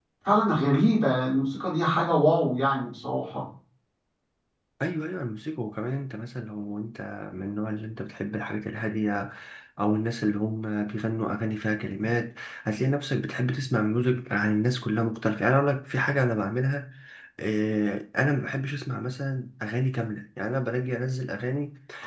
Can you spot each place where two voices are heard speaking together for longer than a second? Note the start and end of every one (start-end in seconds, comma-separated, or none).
none